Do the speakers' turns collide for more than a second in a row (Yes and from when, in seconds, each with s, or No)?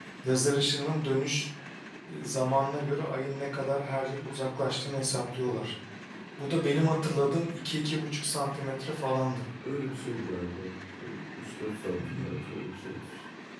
No